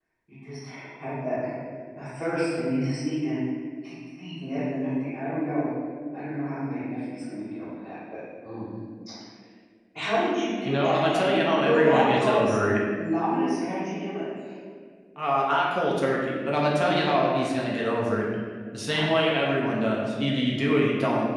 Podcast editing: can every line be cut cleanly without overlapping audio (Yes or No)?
No